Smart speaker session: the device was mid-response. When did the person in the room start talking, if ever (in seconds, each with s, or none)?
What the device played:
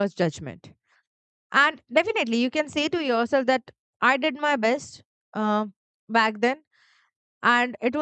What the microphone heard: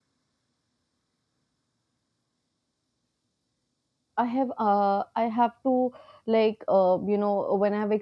4.2 s